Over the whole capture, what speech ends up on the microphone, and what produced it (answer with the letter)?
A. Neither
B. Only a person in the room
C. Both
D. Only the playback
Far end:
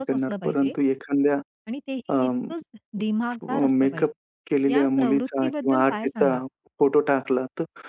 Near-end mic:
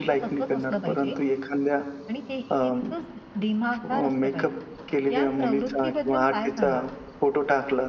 D